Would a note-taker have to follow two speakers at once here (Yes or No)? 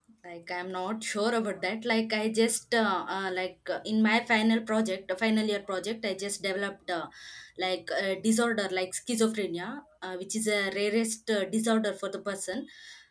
No